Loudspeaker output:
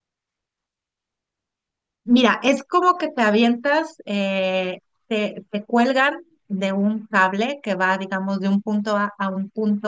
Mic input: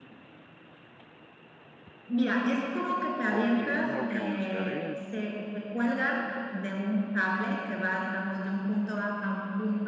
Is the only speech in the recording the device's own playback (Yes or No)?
No